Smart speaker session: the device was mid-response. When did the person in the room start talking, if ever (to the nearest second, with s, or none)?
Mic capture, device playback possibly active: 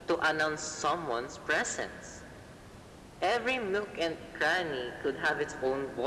none